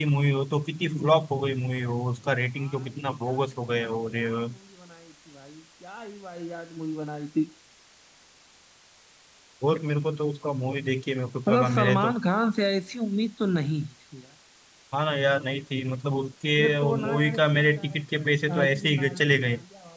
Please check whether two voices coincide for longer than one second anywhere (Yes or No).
Yes